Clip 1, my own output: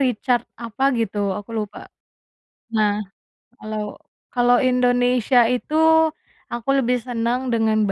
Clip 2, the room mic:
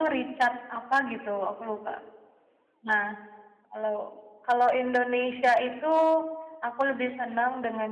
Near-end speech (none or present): none